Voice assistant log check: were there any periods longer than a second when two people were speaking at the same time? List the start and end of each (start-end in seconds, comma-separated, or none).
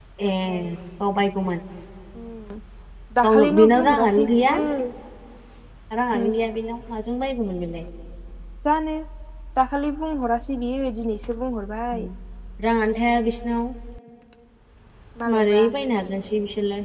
3.2-4.5